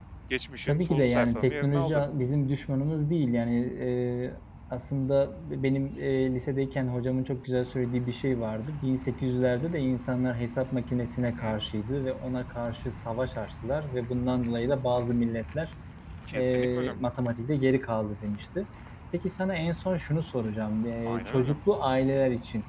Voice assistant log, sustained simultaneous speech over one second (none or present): present